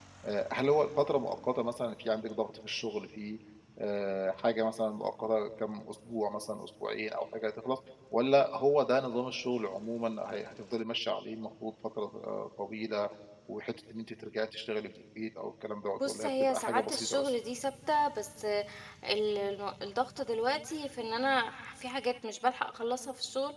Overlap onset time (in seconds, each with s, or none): 16.0 s